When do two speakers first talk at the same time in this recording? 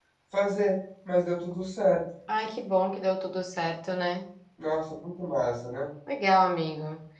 none

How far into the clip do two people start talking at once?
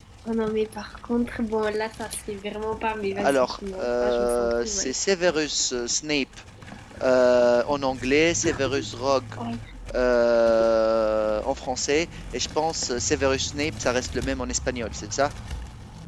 3.1 s

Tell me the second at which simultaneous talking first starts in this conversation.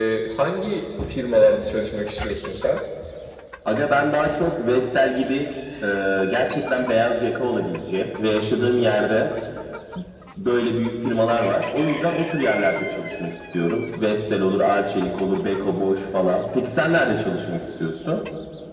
none

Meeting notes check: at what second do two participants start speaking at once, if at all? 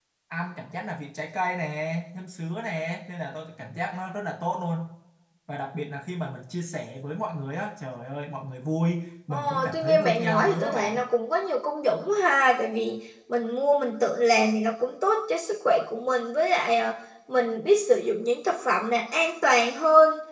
9.3 s

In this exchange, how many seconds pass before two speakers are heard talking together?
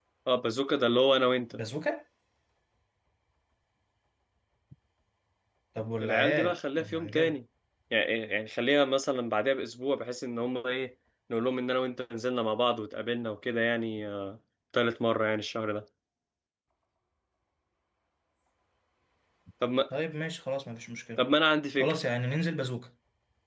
6.0 s

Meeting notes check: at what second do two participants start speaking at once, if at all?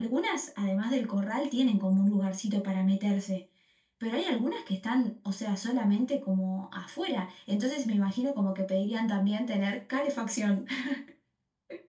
none

